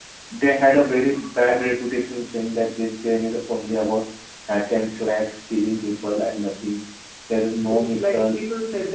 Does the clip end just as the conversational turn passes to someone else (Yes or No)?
Yes